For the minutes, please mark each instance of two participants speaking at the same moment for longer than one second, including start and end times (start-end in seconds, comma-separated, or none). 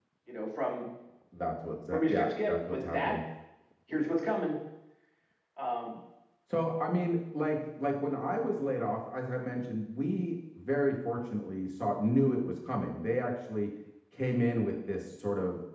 1.9-3.1